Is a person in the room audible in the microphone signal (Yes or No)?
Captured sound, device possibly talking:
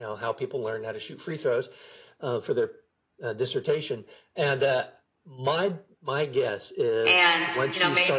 Yes